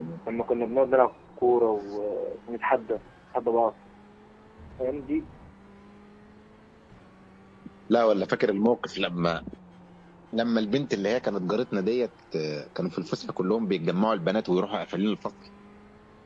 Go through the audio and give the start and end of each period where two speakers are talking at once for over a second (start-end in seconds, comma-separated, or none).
none